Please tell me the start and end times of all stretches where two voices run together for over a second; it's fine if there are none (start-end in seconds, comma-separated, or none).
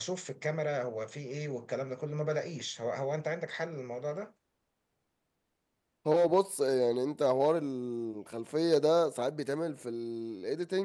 none